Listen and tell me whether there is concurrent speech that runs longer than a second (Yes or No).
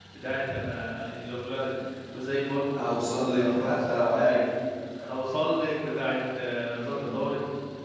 Yes